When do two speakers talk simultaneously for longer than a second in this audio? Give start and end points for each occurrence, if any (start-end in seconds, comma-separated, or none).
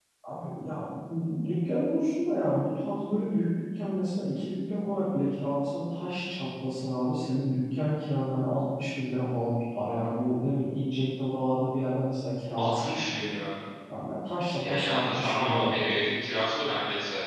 14.6-16.0